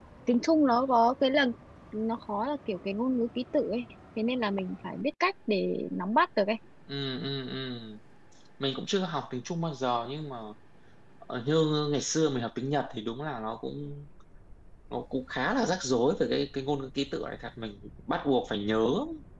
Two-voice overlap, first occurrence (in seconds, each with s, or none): none